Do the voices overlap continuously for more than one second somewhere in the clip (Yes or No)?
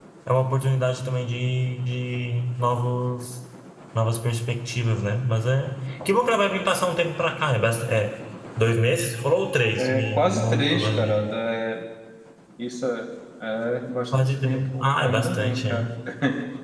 Yes